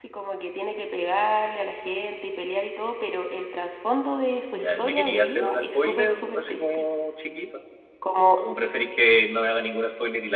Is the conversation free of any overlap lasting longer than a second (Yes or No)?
No